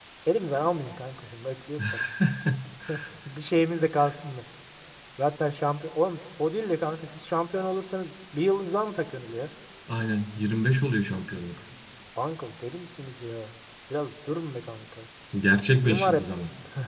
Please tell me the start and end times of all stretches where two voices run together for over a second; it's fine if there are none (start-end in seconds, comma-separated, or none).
none